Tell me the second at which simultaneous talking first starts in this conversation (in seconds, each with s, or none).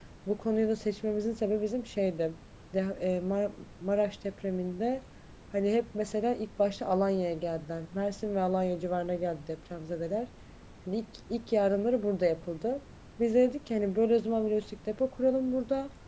none